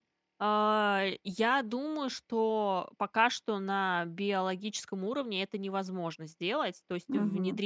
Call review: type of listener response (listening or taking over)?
listening